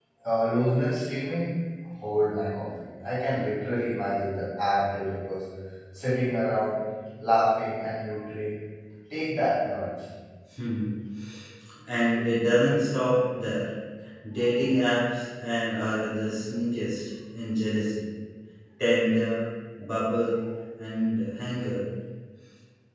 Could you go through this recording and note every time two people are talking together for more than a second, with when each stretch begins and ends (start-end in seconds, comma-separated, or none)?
none